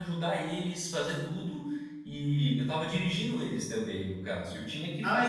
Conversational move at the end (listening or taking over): taking over